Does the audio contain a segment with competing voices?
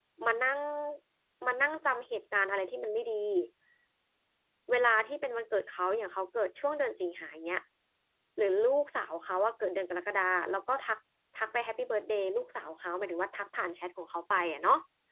No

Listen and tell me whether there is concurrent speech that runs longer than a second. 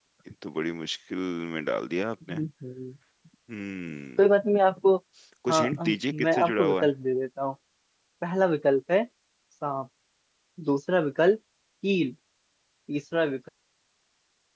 Yes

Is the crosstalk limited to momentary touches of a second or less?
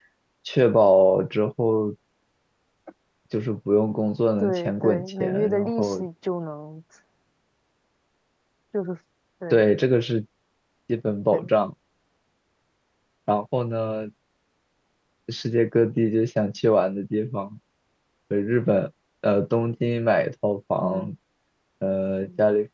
No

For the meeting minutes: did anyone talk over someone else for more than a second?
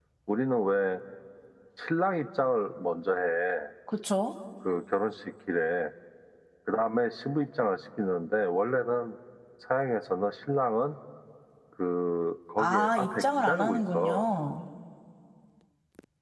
Yes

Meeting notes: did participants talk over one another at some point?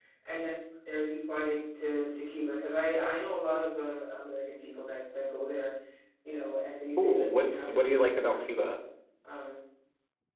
Yes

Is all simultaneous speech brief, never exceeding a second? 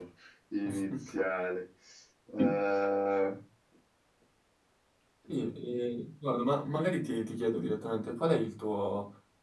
Yes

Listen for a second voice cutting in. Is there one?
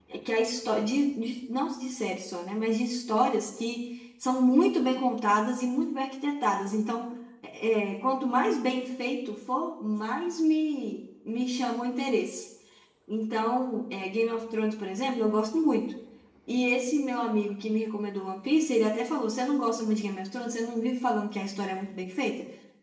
No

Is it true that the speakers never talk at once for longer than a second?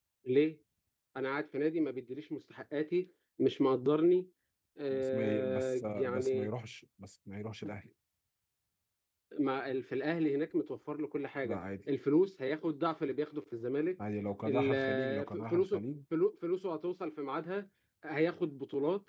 No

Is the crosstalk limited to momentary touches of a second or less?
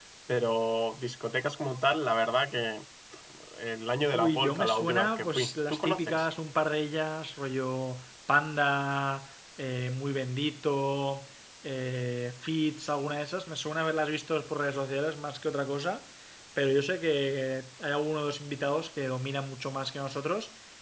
No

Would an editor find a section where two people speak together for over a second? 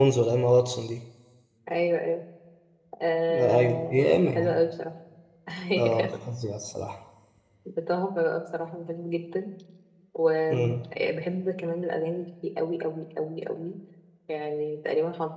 Yes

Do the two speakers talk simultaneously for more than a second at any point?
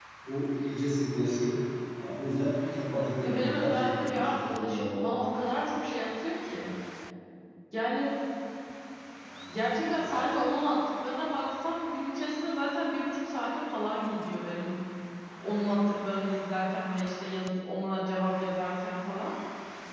Yes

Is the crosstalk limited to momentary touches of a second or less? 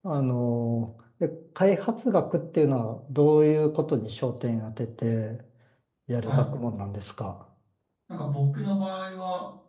Yes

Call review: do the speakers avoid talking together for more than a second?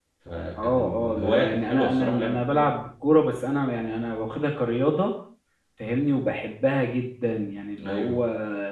No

